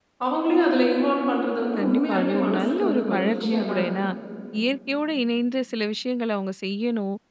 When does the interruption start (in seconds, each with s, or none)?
1.8 s